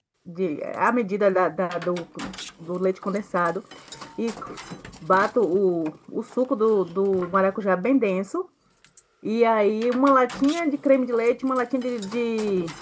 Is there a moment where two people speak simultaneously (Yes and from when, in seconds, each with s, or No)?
No